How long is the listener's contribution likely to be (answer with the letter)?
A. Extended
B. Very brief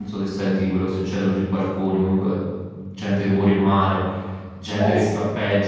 B